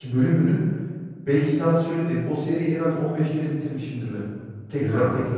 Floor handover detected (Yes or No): No